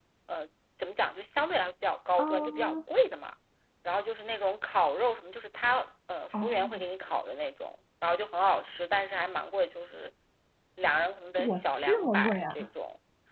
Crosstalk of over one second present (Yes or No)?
Yes